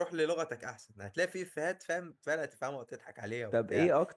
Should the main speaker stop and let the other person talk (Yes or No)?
Yes